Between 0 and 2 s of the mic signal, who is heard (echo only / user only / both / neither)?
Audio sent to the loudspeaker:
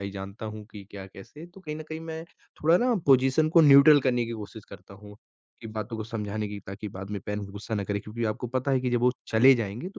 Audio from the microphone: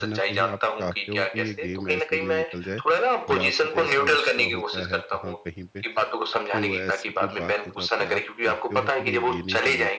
both